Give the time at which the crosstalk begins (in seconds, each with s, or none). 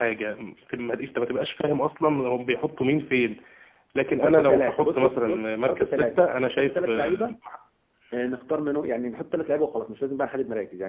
4.2 s